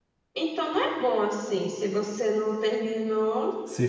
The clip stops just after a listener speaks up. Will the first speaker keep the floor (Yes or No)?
No